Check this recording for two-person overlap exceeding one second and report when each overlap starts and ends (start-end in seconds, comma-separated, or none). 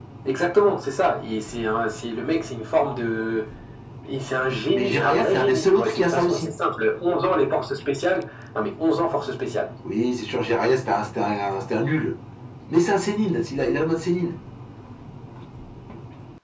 4.7-6.5